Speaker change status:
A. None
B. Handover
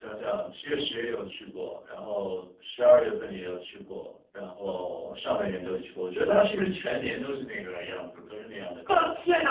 B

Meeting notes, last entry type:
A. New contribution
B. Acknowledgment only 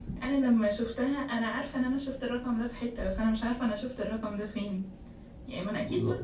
B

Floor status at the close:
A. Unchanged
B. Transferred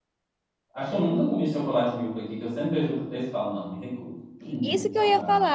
B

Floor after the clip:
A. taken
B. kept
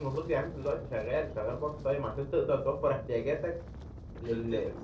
B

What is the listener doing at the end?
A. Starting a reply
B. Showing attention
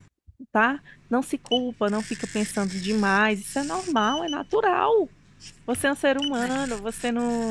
B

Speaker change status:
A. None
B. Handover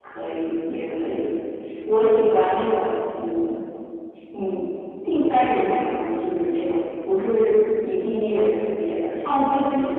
B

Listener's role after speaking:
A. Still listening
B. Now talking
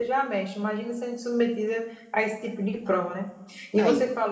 A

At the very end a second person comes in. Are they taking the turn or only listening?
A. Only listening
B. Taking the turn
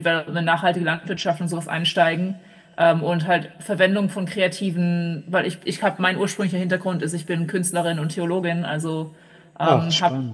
A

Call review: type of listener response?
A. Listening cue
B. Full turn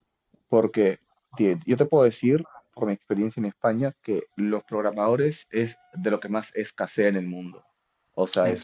A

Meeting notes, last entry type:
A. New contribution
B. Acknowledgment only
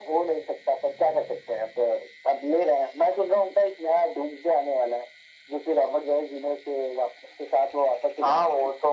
A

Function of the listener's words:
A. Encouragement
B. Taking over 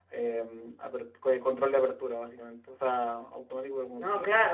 B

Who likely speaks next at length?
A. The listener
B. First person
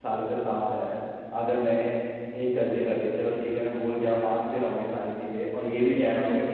A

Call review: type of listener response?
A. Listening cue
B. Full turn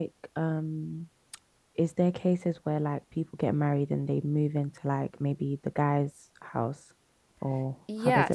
B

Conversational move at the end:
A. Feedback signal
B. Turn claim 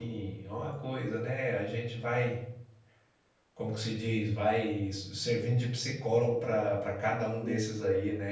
A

